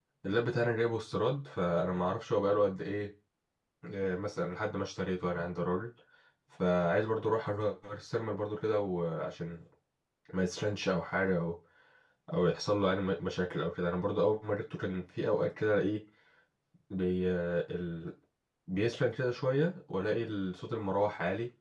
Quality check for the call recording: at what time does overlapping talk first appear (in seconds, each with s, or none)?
none